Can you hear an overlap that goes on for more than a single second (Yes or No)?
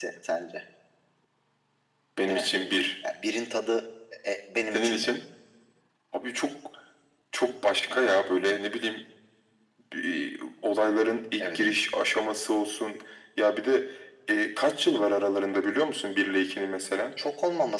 No